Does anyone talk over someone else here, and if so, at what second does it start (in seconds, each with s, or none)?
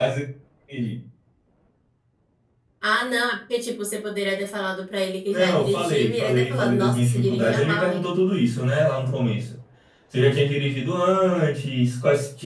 5.3 s